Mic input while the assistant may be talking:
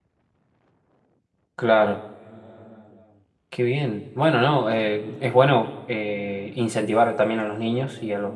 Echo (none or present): none